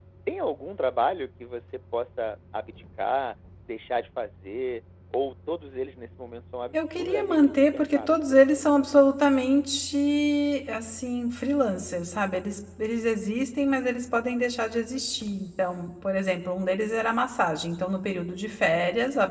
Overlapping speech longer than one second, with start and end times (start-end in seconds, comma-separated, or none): 6.7-8.6